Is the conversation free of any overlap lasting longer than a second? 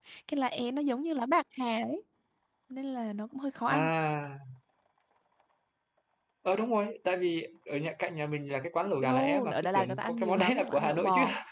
No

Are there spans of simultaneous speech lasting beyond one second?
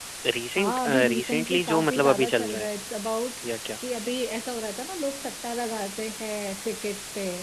Yes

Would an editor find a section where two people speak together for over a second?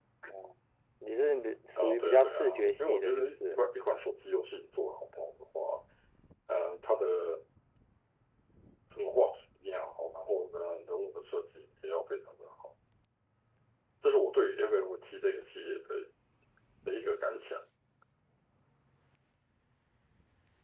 Yes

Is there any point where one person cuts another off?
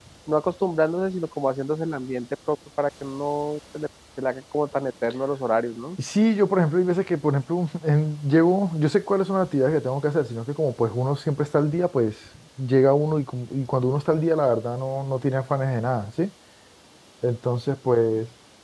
No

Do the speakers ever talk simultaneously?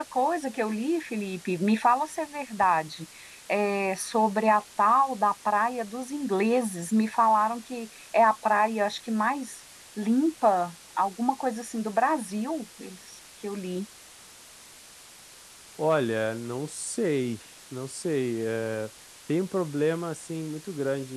No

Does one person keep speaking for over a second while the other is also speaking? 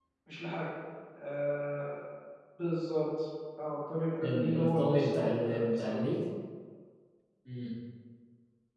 Yes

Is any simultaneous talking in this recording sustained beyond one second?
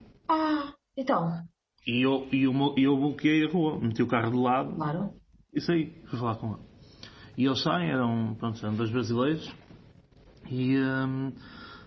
No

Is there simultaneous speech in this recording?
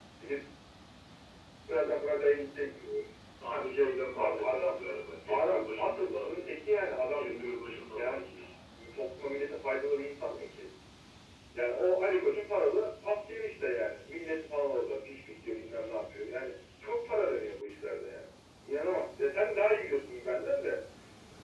Yes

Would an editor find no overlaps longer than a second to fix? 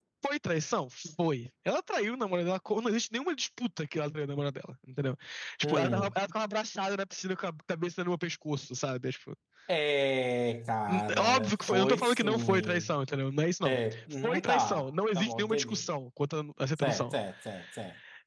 No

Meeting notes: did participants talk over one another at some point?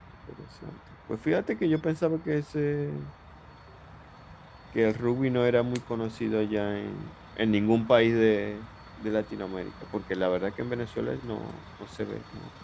No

